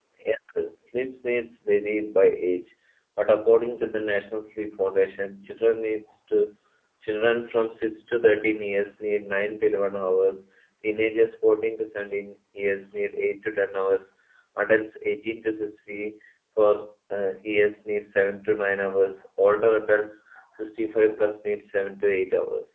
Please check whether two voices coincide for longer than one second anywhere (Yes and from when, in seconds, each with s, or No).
No